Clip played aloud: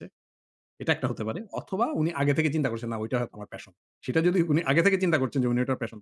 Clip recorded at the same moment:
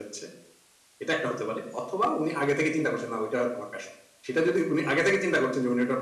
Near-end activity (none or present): none